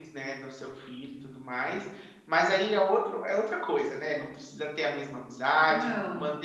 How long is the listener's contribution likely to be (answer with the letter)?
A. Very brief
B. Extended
A